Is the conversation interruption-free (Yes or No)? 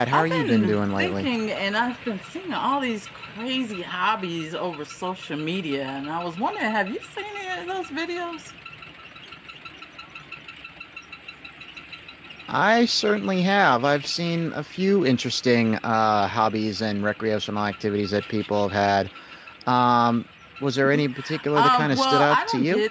No